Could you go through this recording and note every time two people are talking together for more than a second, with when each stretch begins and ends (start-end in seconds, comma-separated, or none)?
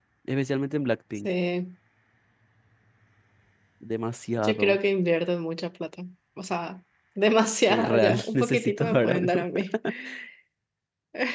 7.7-9.4